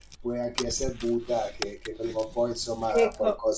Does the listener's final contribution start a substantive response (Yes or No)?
Yes